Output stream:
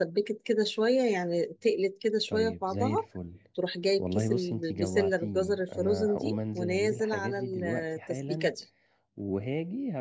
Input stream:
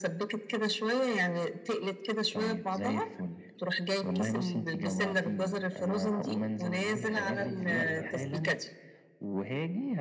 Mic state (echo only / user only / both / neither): both